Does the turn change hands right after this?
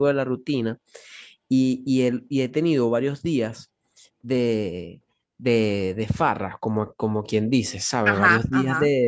No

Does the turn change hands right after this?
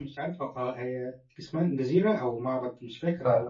Yes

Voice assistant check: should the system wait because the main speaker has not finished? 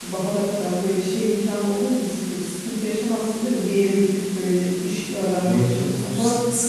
No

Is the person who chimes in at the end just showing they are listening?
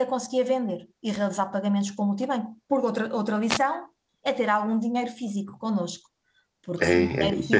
No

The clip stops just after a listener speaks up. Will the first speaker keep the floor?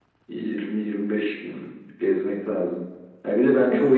Yes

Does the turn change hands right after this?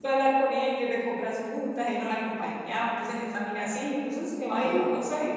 Yes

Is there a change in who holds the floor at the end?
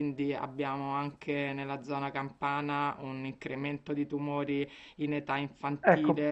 No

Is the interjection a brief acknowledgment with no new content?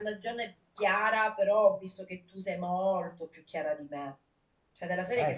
Yes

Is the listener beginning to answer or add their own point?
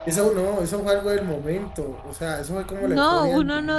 Yes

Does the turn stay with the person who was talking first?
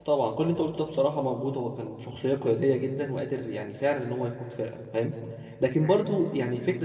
Yes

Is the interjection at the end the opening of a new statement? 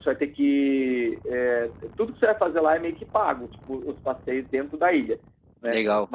No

